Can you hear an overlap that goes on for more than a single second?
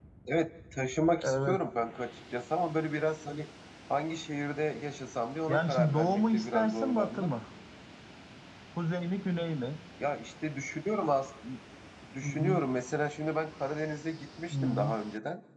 Yes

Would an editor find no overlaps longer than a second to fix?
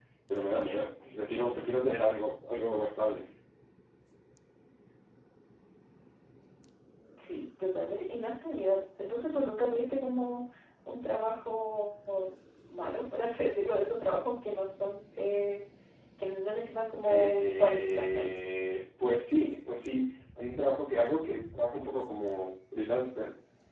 No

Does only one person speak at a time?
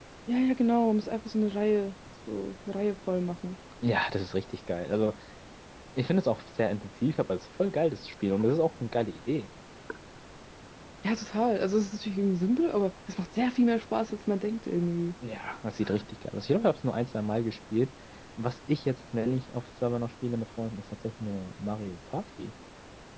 Yes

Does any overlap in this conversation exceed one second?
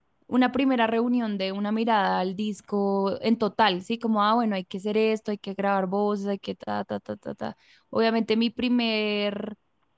No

